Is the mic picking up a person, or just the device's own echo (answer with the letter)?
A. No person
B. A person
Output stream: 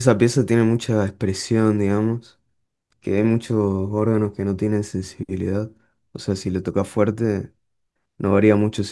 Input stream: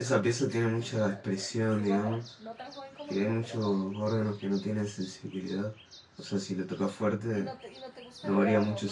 B